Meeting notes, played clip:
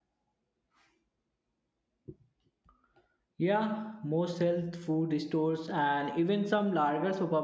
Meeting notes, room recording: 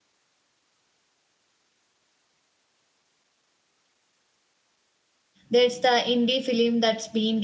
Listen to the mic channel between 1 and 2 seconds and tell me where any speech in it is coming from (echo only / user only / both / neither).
neither